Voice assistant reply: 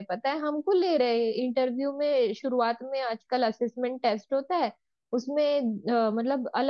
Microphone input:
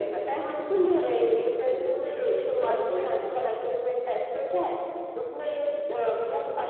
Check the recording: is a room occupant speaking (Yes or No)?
Yes